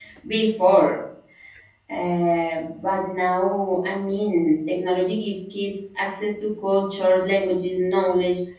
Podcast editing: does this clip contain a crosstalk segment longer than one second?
No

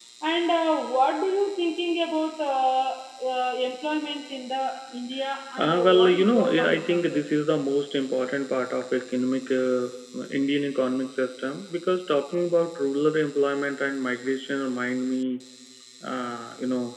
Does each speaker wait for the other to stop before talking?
No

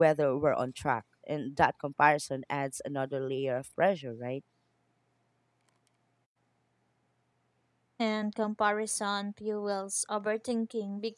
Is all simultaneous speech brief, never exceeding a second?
Yes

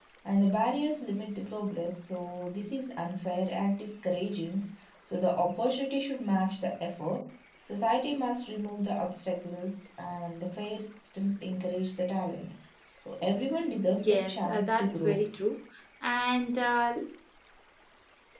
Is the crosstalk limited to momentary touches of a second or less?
No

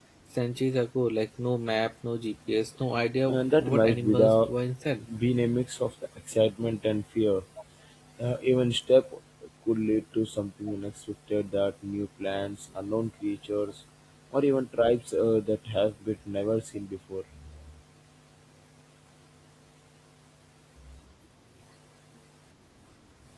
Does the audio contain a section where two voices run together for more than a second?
Yes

